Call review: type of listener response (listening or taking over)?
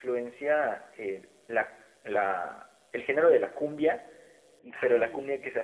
listening